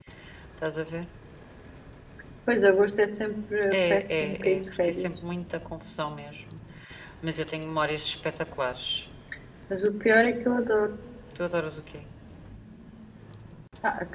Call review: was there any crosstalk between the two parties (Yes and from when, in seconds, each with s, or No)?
Yes, from 3.7 s